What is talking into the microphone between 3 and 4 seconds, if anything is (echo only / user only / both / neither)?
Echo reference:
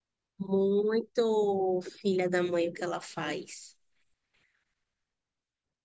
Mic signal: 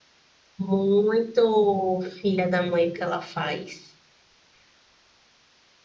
echo only